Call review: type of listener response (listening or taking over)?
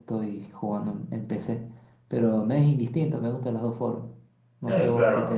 taking over